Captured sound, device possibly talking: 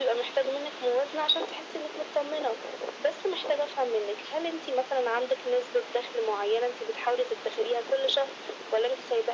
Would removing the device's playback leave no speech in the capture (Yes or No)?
Yes